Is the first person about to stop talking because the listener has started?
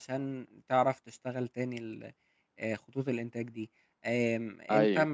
No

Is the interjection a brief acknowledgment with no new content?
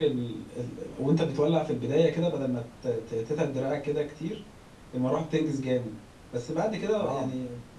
Yes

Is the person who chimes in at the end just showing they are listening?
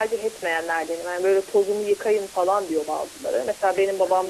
Yes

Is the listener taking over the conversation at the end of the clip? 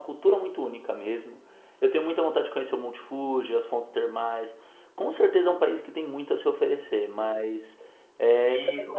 Yes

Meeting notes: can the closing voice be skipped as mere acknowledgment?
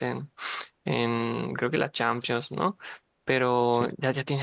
Yes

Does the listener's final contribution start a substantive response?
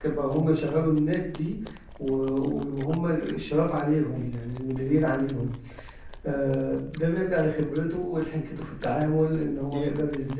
No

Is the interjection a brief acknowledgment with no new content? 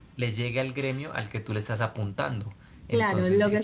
No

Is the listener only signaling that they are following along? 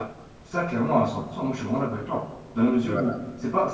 Yes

